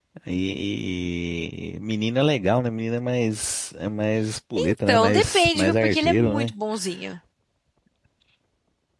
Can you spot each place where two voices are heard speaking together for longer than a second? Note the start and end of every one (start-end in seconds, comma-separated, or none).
4.6-6.5